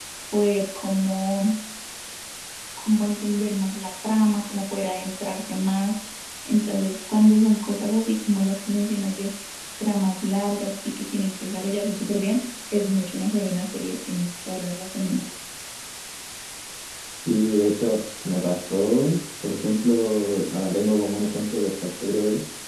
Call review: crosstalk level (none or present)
none